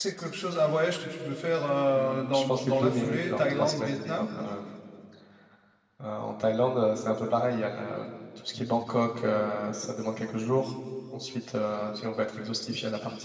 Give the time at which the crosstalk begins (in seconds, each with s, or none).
1.9 s